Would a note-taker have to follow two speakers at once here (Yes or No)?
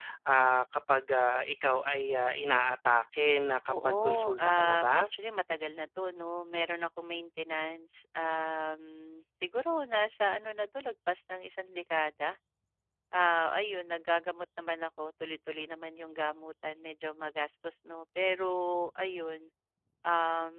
Yes